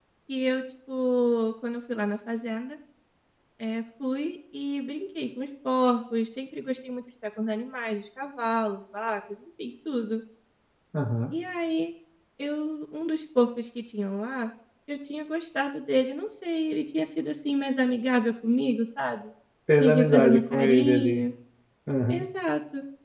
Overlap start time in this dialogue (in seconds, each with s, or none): 19.8 s